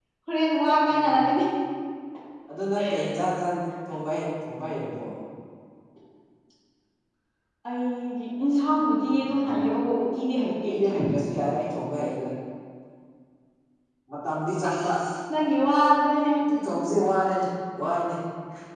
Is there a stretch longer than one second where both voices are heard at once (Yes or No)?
No